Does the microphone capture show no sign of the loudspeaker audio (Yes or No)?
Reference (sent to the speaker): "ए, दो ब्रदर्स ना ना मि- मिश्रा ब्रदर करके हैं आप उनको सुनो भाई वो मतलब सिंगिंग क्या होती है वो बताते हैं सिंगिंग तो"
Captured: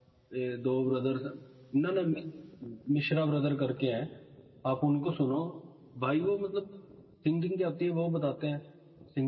No